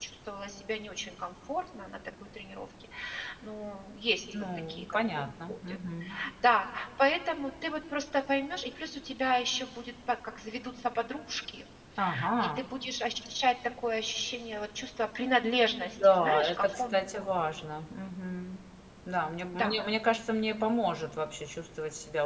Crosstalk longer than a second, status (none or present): present